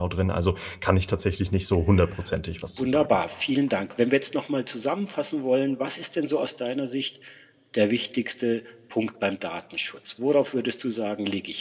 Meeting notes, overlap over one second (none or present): none